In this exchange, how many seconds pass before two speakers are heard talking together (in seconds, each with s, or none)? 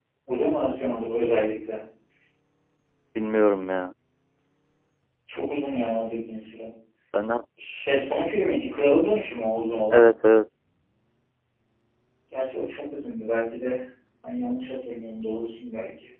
none